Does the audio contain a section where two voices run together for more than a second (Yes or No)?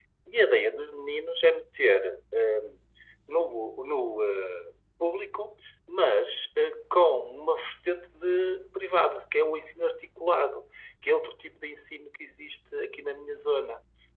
No